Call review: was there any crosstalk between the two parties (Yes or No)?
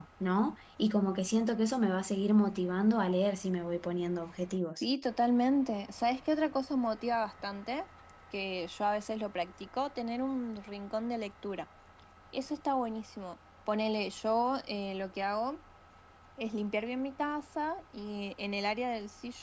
No